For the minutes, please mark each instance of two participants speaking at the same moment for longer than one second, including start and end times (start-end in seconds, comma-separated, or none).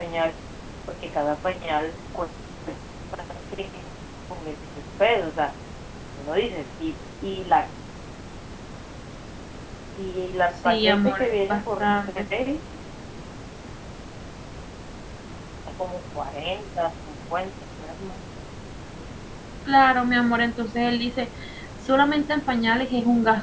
10.7-12.2